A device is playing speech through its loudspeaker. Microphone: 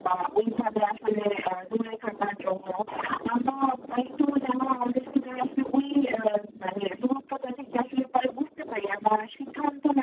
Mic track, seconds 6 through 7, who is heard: echo only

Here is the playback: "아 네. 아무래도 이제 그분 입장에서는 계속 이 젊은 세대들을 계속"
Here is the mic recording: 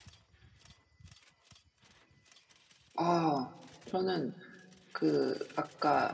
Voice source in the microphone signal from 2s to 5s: user only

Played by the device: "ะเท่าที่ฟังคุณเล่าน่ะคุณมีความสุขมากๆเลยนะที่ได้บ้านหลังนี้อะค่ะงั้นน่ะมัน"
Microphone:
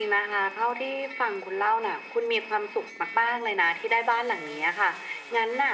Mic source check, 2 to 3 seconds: echo only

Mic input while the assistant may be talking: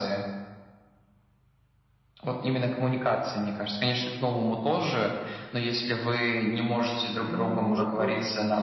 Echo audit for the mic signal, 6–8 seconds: both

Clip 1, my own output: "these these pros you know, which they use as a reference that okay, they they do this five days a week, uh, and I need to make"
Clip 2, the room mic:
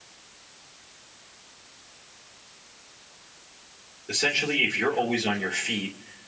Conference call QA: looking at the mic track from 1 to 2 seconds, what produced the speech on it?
neither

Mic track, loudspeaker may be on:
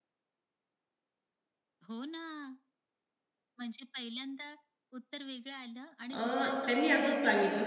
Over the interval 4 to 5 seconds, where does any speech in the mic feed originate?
echo only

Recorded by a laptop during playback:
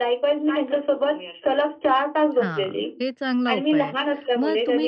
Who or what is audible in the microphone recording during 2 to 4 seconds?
both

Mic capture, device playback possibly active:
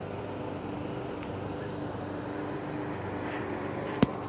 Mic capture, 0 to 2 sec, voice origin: neither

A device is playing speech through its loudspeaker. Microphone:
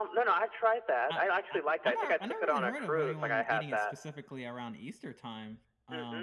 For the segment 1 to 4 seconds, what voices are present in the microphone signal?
both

